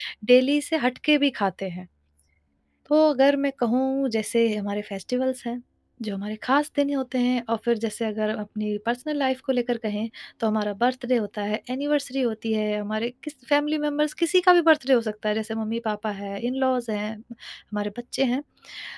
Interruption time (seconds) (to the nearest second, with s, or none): none